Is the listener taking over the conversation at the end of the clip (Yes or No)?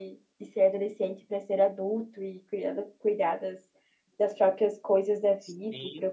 Yes